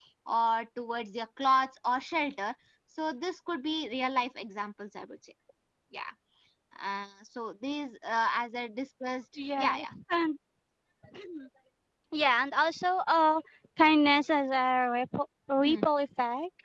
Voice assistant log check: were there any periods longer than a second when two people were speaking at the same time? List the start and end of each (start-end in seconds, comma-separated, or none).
none